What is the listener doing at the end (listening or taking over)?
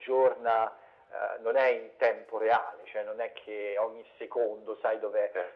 listening